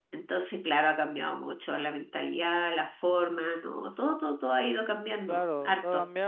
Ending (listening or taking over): taking over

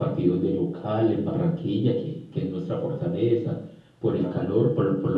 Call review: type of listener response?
listening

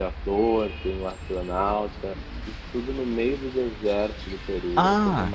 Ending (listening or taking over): taking over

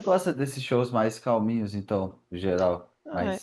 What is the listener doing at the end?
taking over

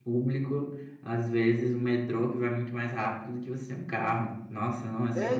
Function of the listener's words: taking over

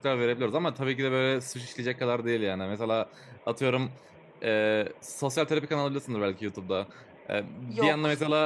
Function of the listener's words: listening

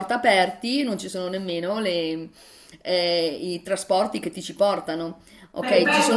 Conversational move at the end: taking over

